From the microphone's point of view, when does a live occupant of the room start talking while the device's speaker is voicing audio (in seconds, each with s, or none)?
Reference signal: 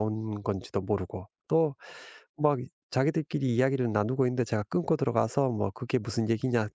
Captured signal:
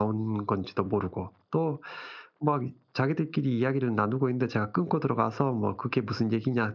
none